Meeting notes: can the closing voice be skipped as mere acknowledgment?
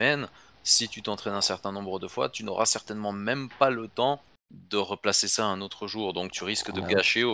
Yes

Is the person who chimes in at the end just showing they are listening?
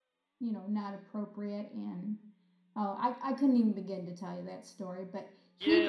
No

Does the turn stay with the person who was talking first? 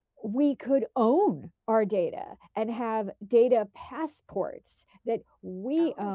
Yes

